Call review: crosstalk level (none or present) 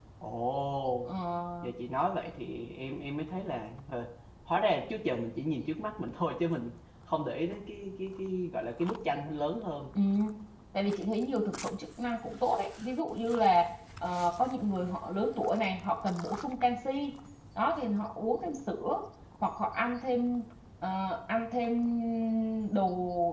none